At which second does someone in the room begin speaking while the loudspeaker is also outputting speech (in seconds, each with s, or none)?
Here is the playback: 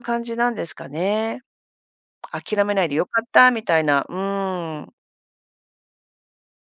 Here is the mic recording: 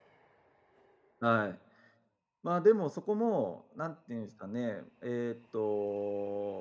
1.2 s